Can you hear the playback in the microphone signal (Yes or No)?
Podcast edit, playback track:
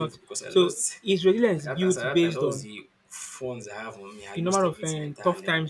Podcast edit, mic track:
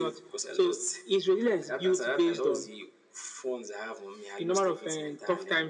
Yes